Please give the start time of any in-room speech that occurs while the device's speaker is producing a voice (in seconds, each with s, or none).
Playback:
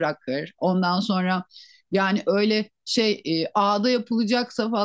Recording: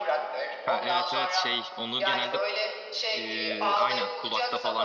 0.6 s